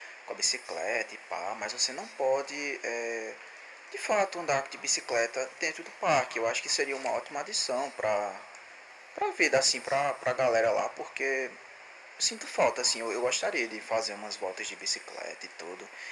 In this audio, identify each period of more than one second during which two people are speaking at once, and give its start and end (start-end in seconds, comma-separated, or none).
none